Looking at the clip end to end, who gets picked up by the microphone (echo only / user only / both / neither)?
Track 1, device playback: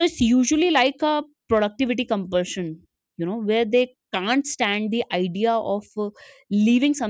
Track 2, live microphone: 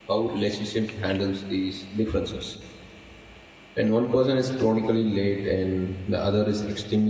user only